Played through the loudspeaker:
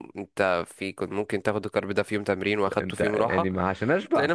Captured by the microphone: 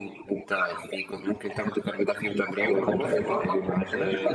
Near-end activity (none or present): present